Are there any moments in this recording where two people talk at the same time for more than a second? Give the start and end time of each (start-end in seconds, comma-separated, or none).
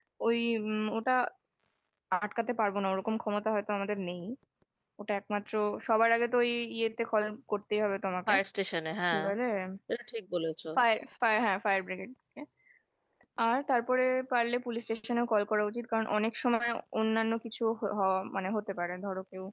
none